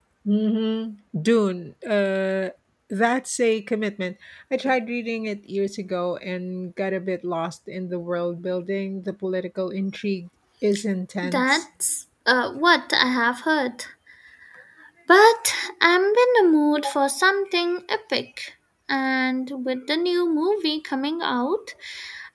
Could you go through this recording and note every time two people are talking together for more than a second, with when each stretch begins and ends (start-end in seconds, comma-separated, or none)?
none